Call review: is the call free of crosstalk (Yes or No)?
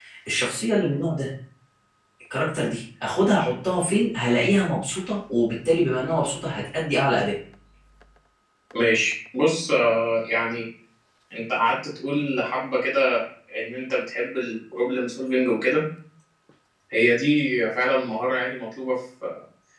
Yes